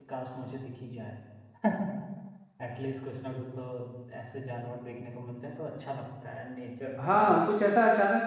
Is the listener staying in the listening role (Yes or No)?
No